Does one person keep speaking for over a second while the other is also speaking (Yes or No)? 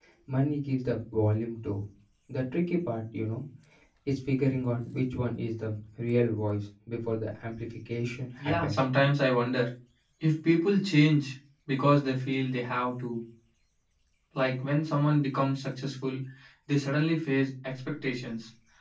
No